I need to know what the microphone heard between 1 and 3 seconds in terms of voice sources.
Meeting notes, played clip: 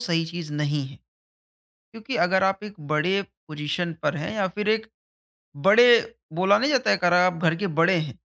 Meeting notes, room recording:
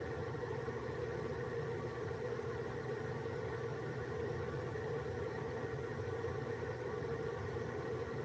neither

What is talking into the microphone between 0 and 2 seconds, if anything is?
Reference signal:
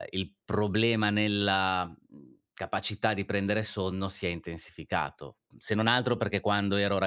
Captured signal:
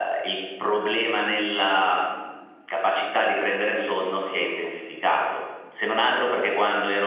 echo only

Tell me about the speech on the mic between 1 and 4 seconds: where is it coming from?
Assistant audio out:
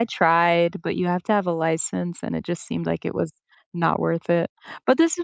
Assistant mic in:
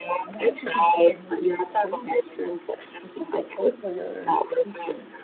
both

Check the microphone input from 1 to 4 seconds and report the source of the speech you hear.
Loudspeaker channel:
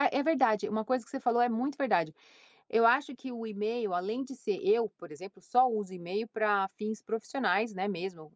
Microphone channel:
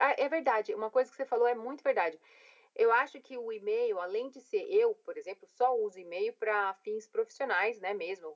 echo only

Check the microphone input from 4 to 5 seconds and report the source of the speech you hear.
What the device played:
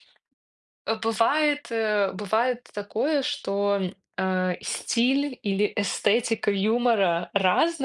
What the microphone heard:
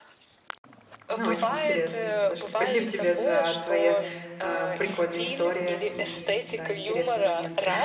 both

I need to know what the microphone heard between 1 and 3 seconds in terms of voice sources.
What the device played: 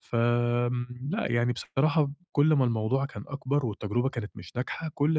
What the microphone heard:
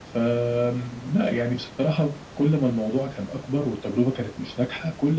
echo only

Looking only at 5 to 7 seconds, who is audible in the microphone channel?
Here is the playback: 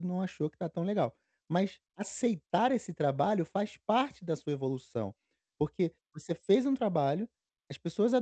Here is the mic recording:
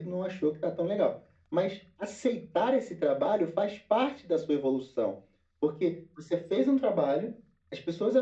echo only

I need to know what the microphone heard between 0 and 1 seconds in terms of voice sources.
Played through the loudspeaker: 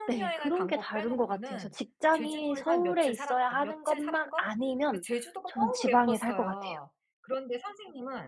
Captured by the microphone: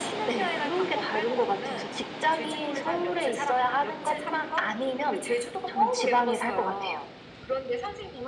echo only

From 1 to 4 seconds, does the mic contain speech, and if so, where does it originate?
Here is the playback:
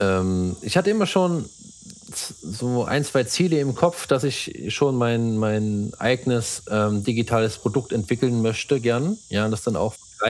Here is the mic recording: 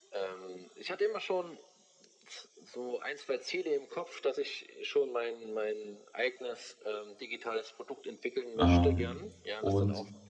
echo only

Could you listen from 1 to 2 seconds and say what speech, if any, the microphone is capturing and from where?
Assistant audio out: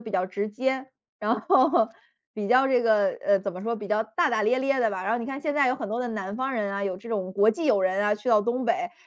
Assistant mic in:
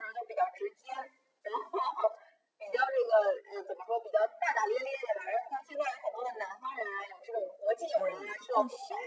echo only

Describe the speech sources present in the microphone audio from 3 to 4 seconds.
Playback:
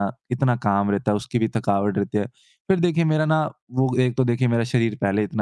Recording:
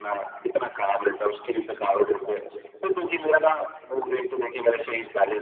echo only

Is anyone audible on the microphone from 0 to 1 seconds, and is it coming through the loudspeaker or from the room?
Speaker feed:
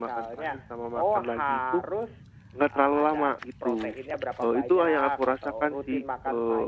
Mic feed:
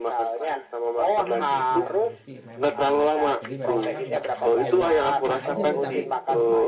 echo only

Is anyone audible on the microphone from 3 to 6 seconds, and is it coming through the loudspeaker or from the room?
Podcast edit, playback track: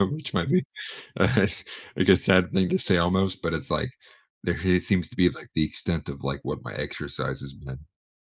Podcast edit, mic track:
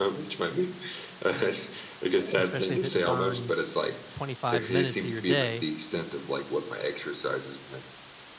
both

